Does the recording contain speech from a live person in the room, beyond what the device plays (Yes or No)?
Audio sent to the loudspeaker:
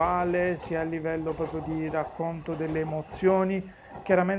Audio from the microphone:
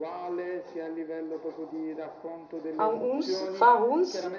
Yes